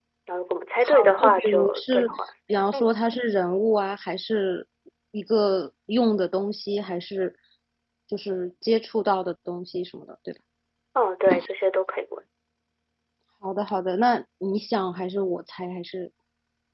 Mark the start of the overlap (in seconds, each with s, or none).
0.8 s